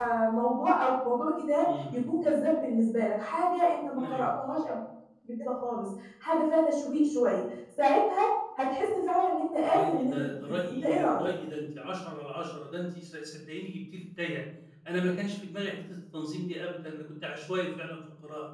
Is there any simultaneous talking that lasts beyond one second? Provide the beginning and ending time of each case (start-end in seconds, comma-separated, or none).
9.6-11.2